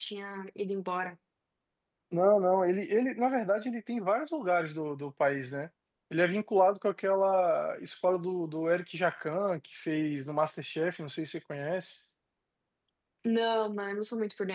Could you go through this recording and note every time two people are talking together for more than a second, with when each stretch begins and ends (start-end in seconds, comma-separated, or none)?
none